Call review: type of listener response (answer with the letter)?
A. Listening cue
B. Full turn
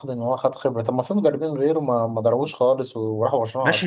B